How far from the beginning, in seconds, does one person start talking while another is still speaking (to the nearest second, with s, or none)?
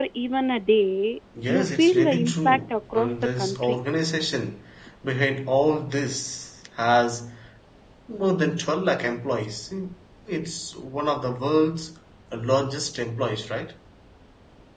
1 s